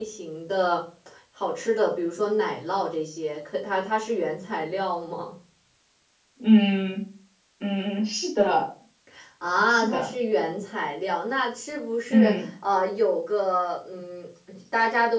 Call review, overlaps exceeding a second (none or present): none